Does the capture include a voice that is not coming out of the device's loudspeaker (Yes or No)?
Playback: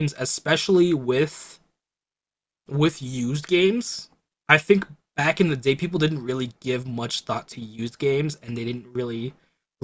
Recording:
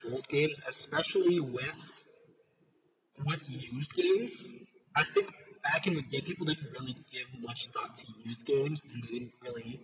No